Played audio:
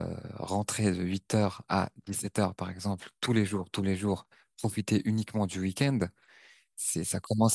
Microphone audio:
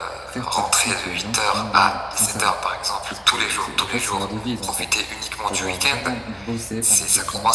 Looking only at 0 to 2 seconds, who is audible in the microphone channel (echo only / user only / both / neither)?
both